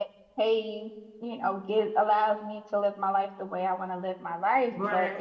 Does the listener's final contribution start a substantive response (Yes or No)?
No